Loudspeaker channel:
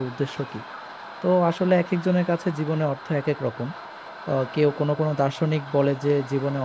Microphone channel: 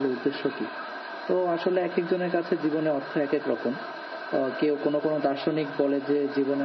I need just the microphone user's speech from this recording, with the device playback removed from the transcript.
none

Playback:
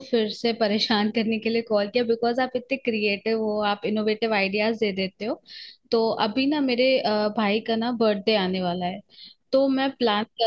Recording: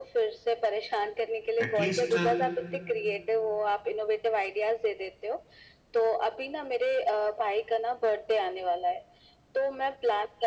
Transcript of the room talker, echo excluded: एटलीस्ट

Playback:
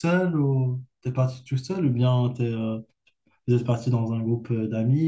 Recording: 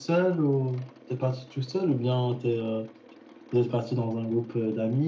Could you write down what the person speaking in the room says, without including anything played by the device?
none

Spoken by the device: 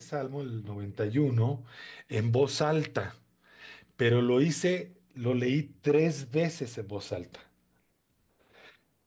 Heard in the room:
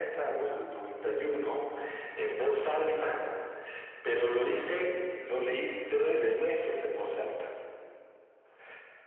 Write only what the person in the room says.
sí,

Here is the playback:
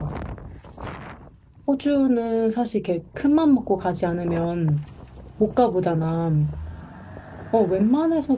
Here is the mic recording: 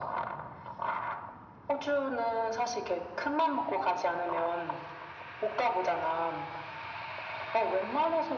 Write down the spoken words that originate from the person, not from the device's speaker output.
none

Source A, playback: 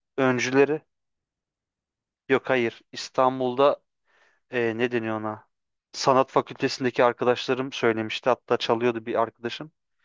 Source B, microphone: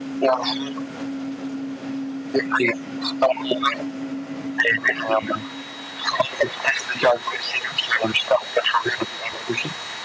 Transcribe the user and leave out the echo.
none

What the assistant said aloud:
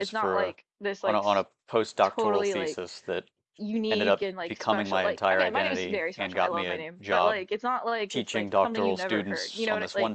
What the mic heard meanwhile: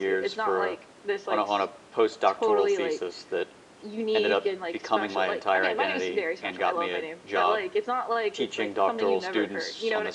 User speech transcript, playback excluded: none

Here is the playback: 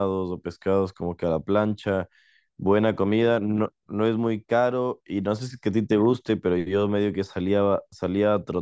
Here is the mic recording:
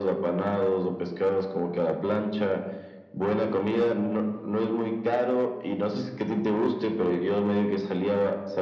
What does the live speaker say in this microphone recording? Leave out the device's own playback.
none

